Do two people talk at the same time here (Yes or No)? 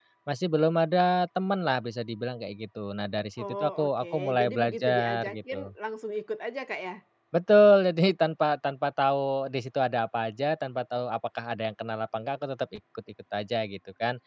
Yes